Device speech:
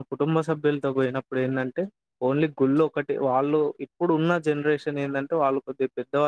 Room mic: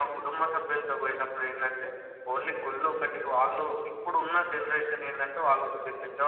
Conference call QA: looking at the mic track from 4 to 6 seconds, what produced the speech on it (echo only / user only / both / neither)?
echo only